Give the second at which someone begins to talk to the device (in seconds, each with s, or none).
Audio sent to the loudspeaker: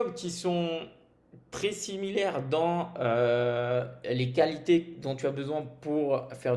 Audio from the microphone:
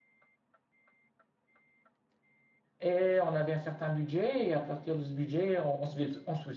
2.8 s